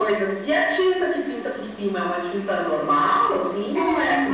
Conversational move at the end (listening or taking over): taking over